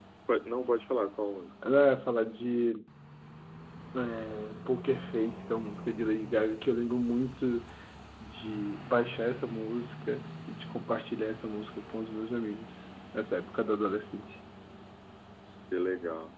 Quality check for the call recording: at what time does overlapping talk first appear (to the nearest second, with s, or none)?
none